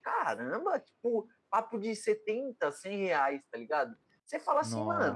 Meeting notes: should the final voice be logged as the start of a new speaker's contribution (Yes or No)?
No